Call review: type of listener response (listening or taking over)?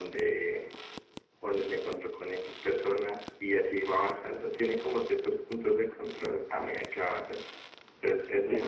listening